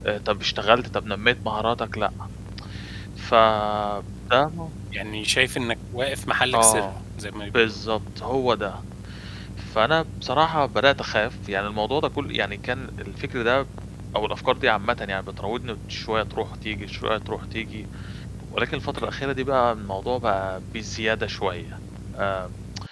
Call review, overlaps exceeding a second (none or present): none